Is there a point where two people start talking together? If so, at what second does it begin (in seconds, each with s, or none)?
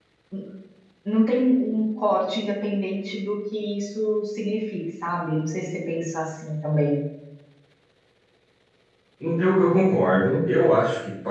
none